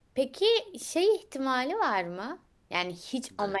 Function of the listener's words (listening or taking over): listening